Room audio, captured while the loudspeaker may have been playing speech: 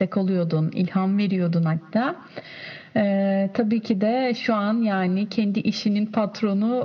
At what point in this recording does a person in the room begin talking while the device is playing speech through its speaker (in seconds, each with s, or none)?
none